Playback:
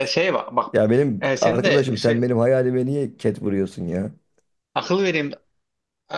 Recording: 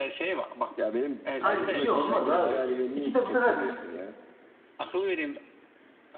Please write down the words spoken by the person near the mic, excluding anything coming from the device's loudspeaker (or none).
Abi iki olmaz abi. İki de bu sefer